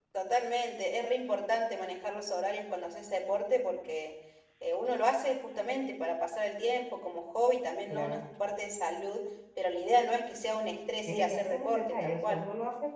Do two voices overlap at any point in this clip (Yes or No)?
Yes